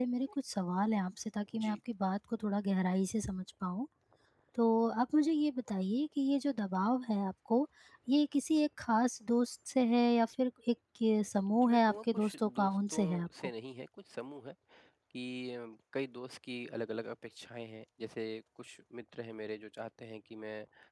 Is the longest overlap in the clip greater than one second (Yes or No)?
Yes